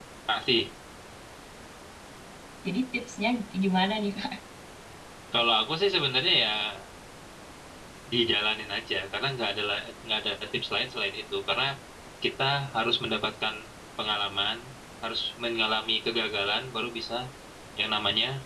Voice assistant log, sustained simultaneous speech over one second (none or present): none